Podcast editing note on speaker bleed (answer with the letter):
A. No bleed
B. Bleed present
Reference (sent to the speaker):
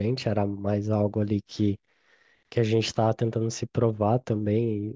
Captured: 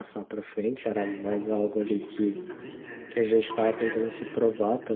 B